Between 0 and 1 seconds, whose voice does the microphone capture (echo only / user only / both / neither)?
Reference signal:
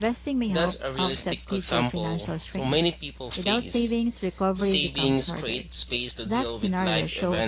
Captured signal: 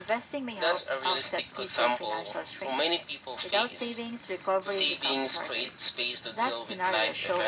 echo only